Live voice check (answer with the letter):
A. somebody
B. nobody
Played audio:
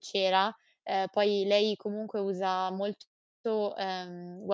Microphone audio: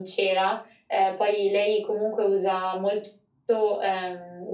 B